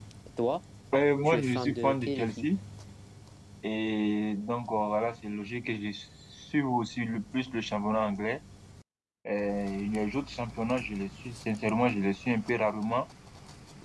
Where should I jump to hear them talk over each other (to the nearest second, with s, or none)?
1 s